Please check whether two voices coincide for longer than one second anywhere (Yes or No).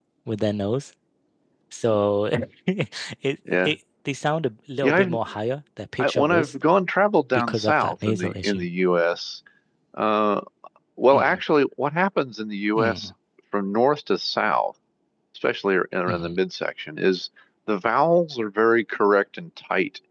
Yes